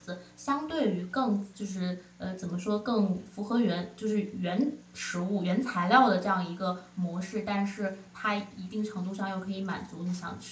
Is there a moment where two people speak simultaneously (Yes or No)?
No